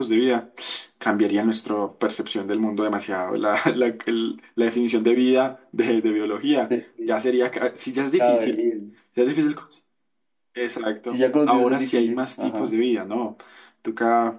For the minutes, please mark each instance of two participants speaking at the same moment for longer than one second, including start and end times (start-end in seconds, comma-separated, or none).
11.1-12.7